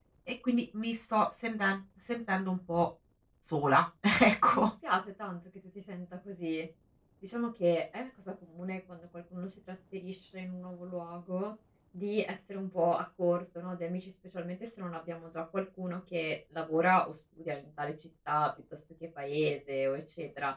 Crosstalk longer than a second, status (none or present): none